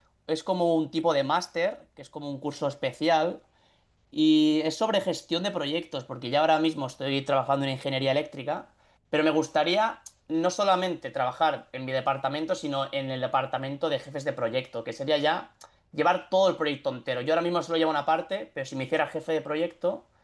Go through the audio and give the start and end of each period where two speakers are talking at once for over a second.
none

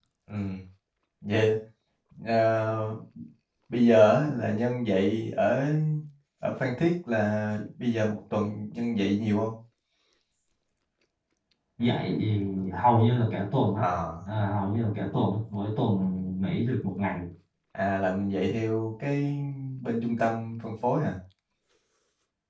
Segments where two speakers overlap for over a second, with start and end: none

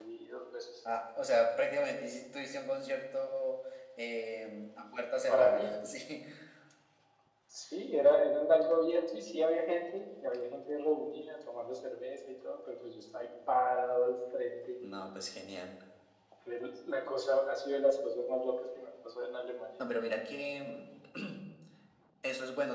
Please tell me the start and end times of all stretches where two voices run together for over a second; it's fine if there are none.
none

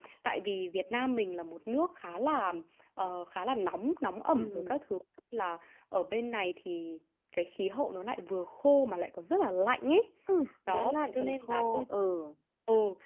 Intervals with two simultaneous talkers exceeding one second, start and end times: 10.7-11.9

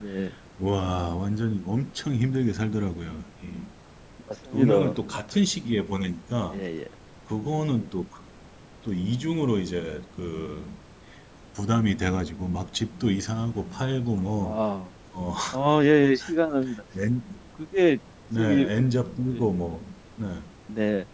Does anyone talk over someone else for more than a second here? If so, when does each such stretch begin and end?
none

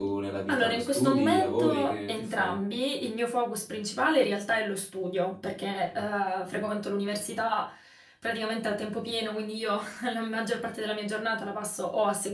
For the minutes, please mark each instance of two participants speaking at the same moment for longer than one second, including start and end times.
0.5-2.6

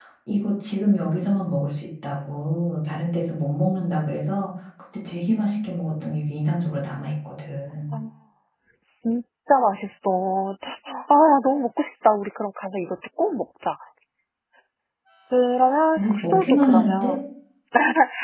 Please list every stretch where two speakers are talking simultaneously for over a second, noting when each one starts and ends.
16.0-17.2

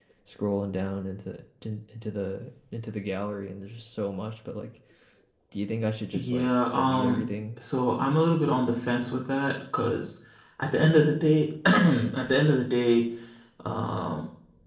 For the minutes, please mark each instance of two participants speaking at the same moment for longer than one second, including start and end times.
6.1-7.6

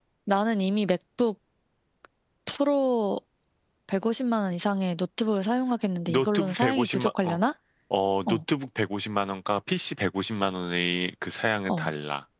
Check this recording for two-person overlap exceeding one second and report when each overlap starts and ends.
6.0-7.4

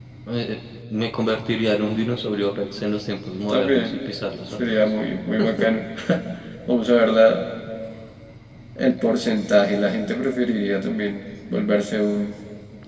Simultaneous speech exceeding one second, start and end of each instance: none

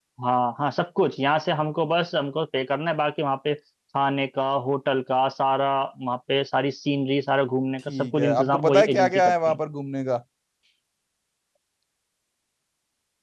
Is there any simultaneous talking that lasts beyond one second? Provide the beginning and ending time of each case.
7.9-9.6

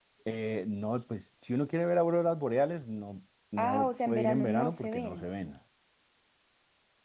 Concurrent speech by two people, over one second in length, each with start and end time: 3.6-5.2

